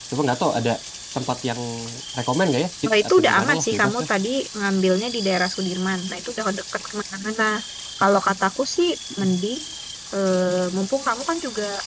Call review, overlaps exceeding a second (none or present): present